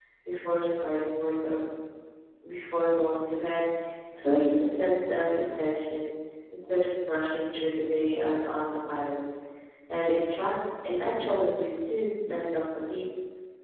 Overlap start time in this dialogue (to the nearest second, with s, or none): none